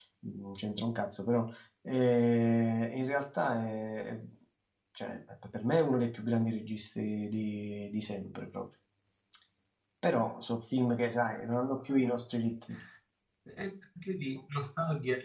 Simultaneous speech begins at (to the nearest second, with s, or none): none